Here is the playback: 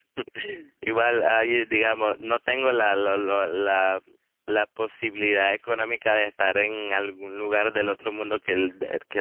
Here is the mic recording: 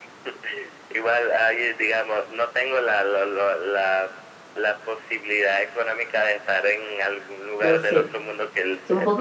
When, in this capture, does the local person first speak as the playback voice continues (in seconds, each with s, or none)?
7.6 s